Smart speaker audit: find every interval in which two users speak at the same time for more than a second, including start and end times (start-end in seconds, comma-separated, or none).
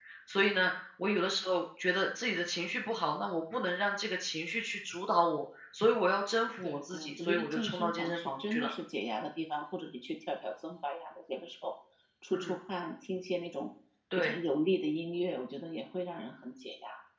6.6-8.7